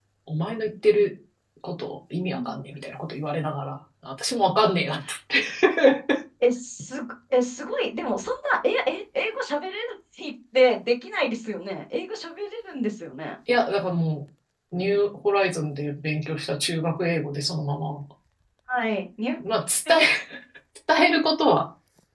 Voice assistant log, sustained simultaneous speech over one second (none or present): none